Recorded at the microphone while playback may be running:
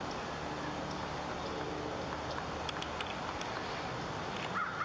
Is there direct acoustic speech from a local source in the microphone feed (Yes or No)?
No